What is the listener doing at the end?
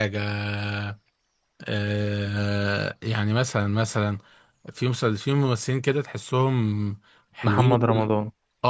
listening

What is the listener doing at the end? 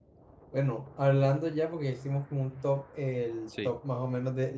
listening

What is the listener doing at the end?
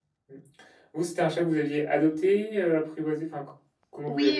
taking over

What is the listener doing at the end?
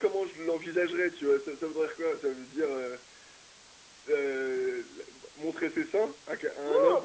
taking over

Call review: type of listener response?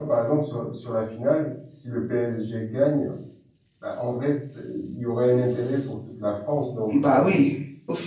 taking over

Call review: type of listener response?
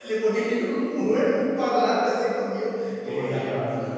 taking over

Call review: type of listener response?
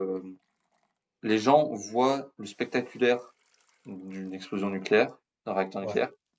listening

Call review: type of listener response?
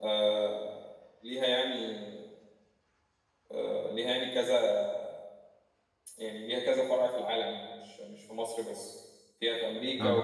listening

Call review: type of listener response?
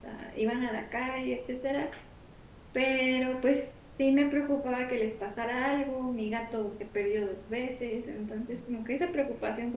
listening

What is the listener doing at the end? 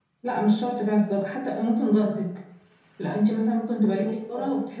listening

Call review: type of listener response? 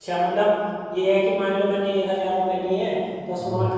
listening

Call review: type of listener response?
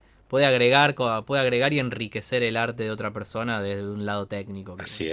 taking over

